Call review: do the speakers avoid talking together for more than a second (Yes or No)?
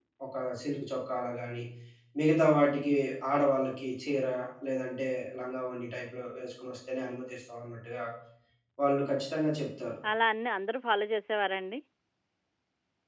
Yes